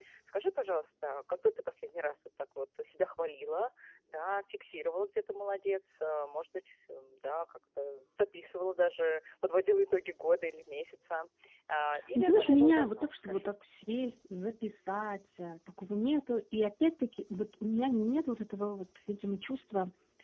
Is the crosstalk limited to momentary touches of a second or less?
No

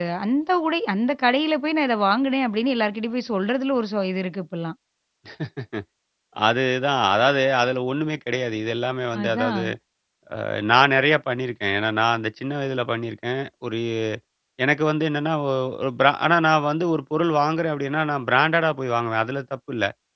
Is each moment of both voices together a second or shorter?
Yes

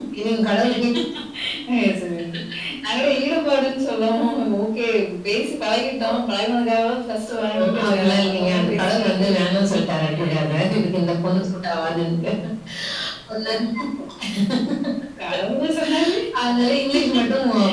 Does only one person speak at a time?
No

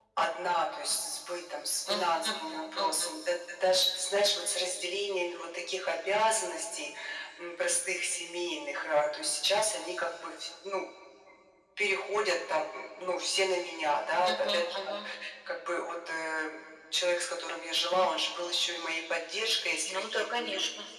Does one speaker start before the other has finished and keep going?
Yes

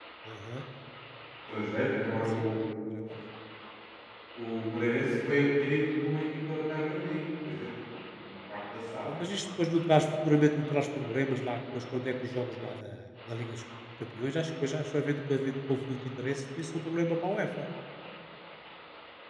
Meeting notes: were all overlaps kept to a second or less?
Yes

